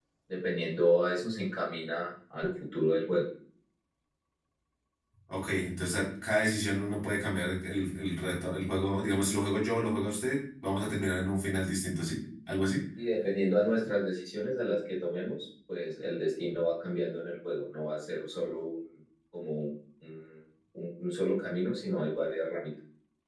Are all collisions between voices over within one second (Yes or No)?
Yes